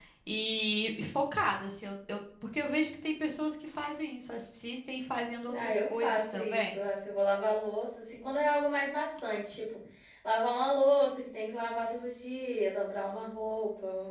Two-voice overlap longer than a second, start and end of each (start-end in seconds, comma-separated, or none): 5.5-6.8